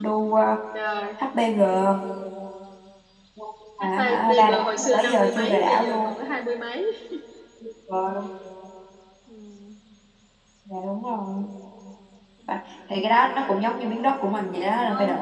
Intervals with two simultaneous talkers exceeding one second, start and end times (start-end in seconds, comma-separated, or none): 3.8-6.1